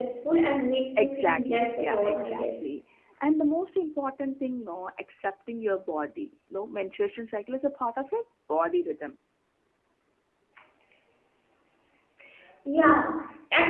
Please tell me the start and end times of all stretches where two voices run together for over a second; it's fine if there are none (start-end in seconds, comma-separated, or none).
1.0-2.6